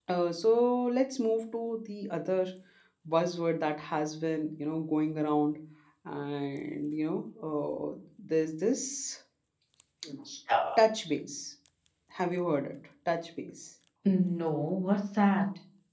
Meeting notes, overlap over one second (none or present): none